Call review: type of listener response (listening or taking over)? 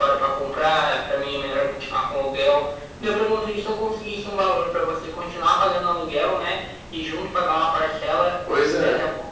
listening